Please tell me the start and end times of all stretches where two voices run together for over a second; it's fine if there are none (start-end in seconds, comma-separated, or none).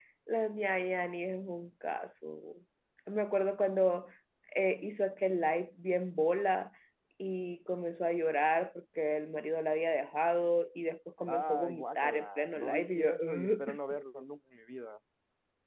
11.3-13.8